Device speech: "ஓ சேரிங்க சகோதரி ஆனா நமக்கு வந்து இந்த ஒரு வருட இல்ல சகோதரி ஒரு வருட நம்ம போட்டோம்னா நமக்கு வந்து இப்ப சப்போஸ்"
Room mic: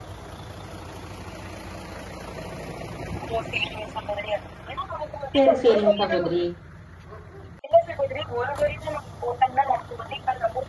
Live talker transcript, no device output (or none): சேரி சேரிங்க சகோதரி